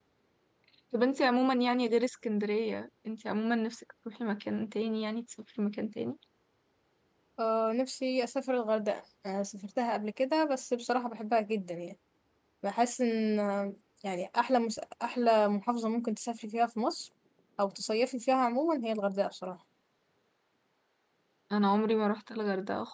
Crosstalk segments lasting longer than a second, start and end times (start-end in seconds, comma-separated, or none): none